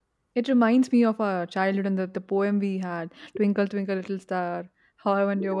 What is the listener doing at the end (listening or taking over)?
listening